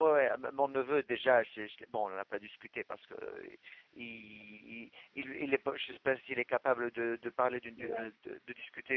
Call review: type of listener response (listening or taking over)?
listening